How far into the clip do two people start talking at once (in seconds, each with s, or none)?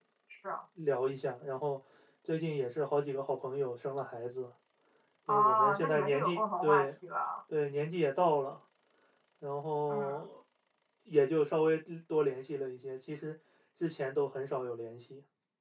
5.3 s